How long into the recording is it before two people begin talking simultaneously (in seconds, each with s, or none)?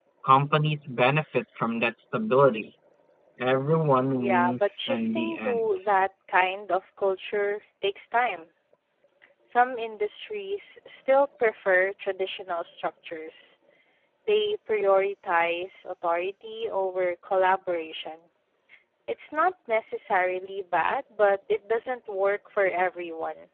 4.2 s